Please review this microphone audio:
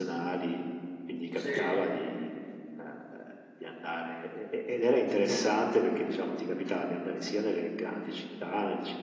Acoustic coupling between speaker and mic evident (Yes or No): Yes